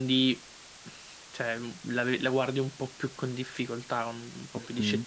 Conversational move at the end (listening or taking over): taking over